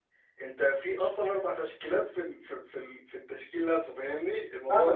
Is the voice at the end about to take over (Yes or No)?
Yes